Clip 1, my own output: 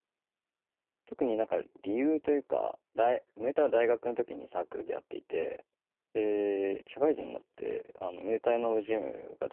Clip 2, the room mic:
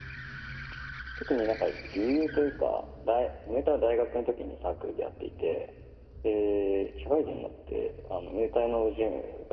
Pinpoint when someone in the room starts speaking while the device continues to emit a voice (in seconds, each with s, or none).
none